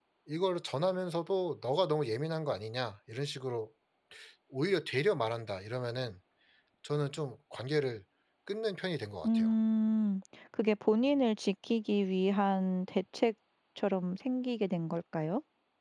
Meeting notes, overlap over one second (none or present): none